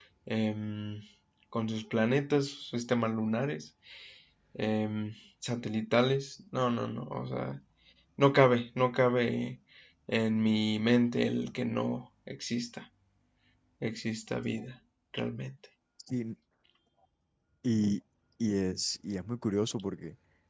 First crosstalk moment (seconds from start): none

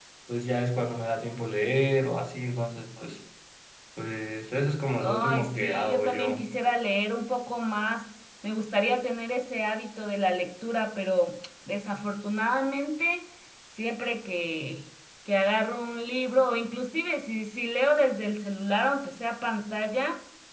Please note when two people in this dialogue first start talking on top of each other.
5 s

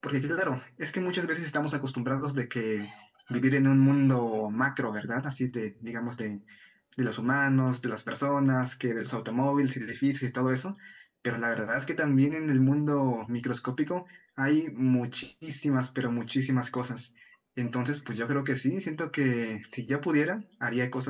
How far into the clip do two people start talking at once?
none

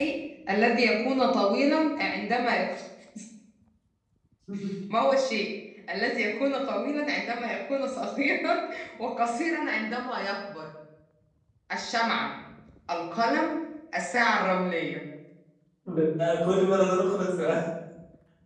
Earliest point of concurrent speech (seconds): none

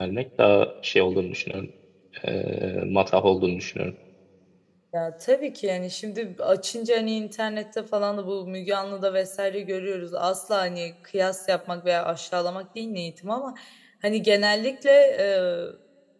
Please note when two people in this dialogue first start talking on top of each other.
none

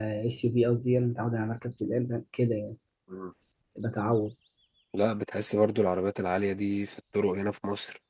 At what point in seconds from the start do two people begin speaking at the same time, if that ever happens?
none

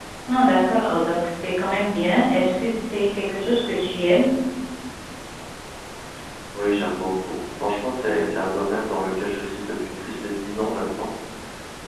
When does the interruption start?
none

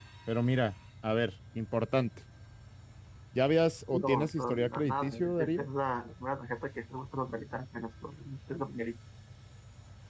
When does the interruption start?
4 s

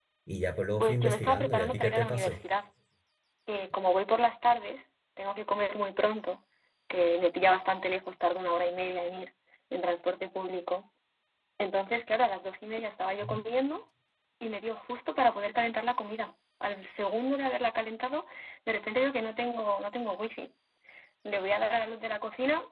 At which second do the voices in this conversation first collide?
1 s

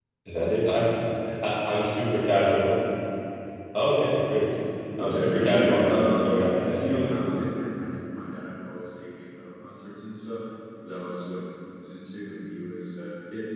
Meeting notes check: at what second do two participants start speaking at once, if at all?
5 s

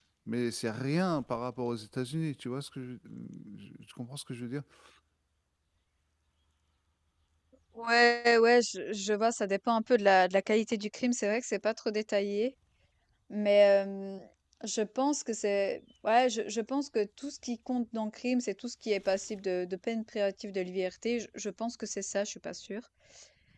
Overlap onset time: none

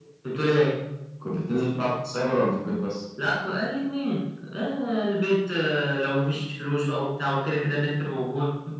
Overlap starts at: none

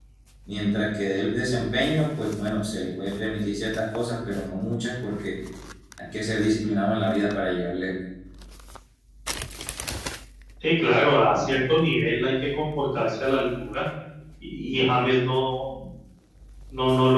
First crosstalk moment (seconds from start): none

